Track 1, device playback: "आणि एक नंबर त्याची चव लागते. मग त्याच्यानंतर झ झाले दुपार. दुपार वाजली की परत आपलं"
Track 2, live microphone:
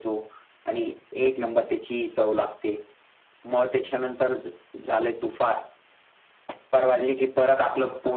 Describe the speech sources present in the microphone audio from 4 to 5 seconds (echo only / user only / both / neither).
echo only